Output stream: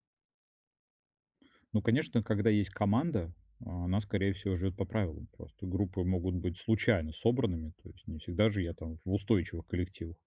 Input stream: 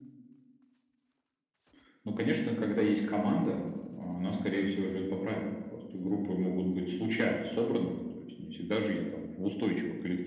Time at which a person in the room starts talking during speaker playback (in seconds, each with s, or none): none